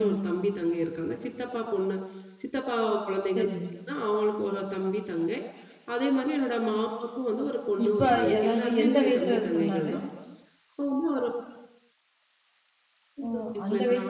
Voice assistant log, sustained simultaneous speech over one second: present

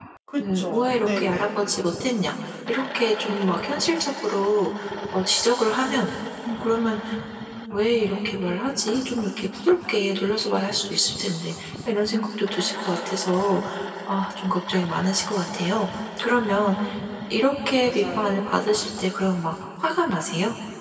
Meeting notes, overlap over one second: present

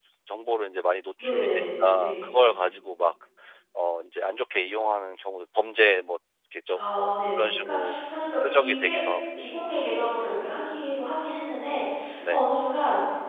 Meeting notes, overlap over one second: present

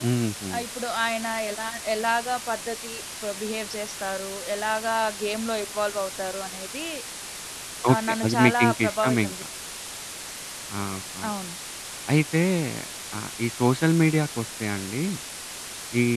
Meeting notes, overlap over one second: present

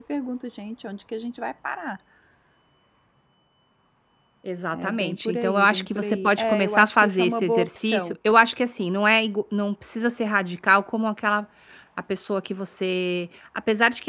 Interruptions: present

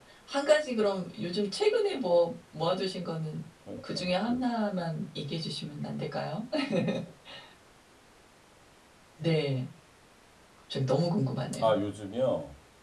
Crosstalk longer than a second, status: none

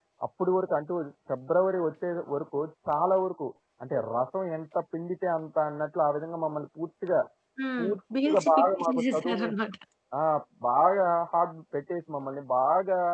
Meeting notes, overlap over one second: present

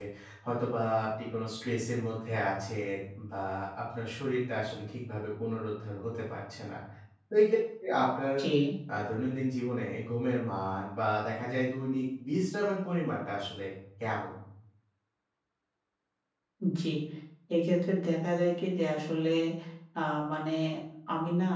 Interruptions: none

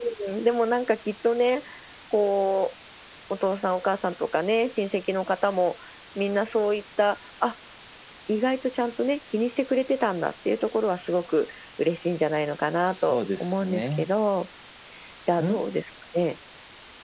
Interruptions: present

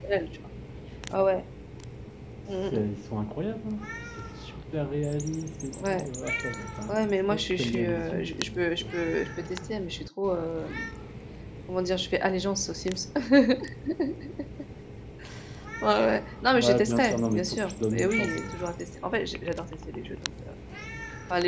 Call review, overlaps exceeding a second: present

